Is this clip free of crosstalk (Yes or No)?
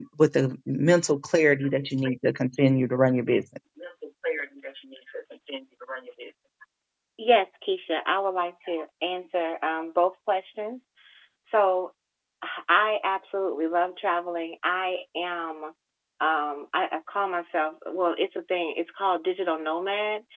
Yes